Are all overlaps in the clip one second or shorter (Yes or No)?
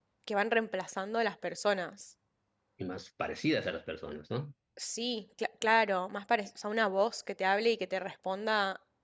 Yes